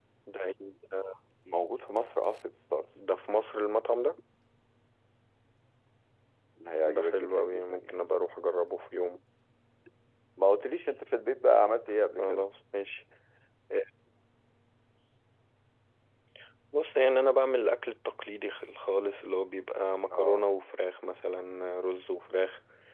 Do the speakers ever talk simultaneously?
Yes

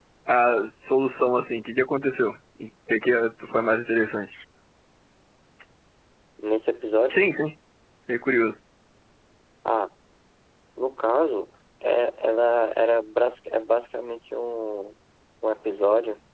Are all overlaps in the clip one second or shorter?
Yes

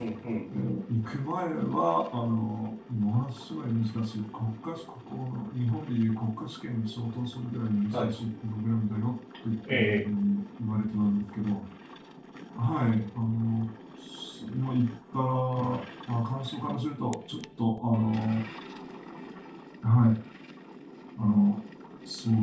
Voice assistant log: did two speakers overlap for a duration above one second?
No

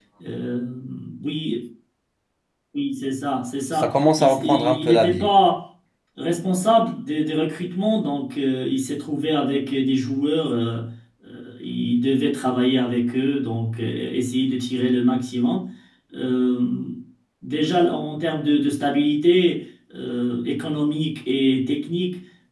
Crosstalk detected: Yes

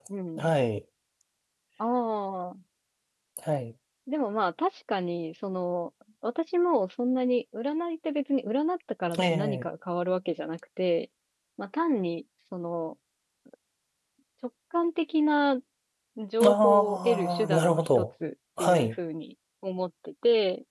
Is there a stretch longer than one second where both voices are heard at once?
Yes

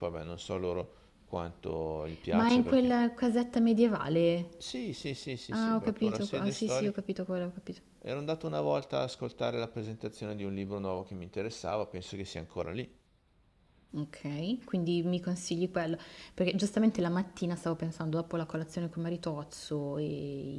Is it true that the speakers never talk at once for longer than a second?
No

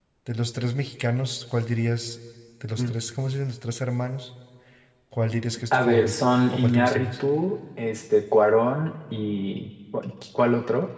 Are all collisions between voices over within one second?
No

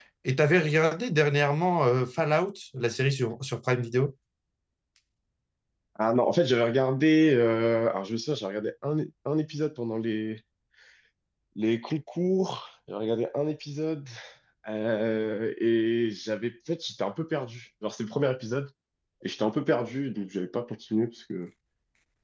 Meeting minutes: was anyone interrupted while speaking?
No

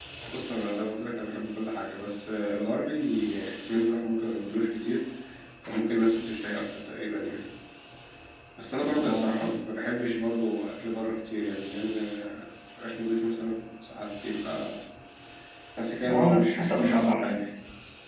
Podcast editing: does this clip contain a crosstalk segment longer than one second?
Yes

